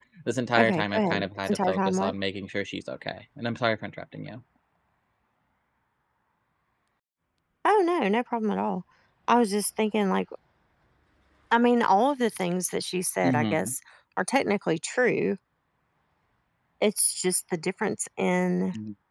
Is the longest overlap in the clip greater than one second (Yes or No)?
Yes